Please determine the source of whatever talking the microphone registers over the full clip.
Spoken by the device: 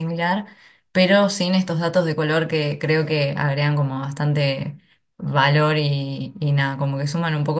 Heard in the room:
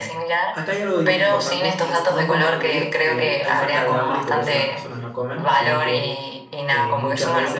both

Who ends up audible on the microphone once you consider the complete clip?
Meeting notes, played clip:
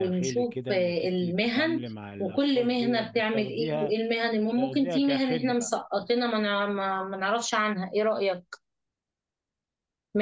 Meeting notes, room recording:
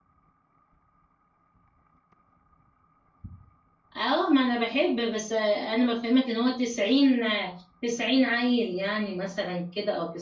user only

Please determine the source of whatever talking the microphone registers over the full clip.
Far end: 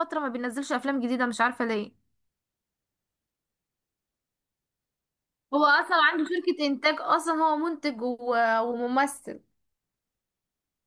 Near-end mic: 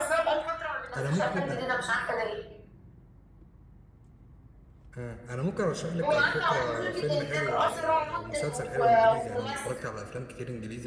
both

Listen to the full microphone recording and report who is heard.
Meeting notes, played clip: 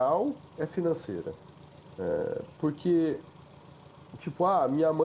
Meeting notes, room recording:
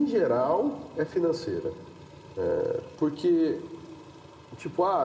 echo only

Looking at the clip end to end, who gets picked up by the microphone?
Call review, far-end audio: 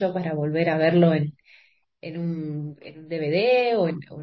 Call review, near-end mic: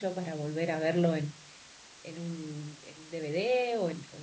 echo only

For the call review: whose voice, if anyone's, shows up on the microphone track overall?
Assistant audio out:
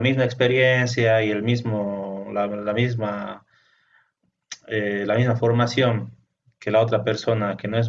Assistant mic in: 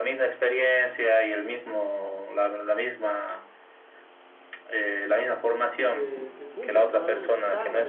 both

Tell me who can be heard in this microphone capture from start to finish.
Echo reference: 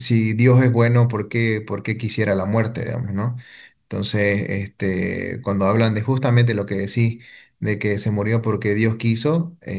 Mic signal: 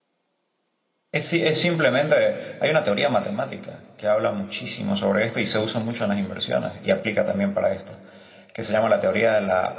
user only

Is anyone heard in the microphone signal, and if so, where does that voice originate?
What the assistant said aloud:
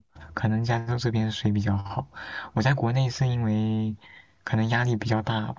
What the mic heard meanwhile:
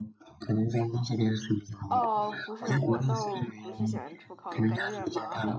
both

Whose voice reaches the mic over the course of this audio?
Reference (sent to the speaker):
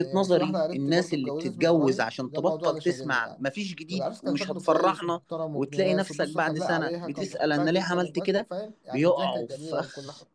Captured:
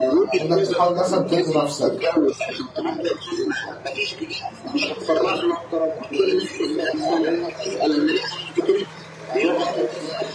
both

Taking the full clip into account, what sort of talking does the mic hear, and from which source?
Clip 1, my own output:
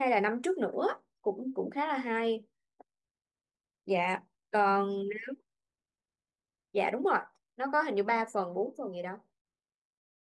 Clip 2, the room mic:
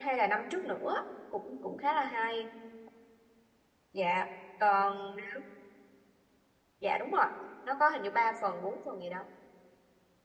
echo only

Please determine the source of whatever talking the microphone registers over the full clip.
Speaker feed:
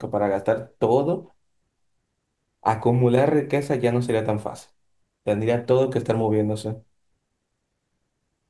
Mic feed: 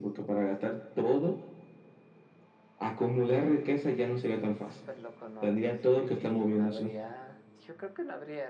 both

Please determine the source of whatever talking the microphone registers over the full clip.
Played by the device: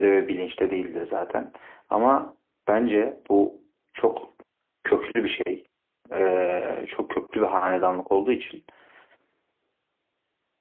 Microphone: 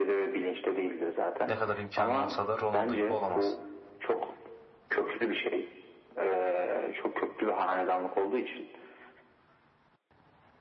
both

